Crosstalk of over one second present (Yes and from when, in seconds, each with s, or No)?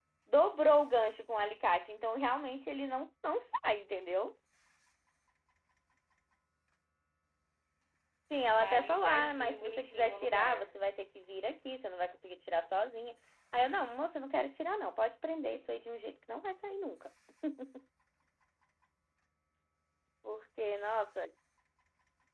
Yes, from 8.5 s